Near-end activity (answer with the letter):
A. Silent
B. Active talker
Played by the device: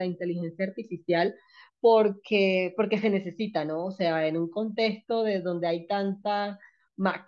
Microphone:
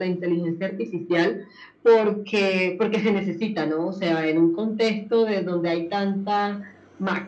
A